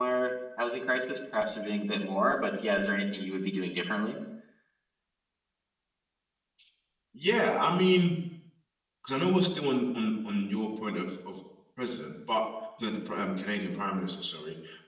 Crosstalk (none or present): none